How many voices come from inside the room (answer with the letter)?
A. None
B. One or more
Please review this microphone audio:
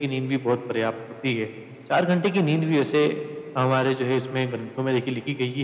A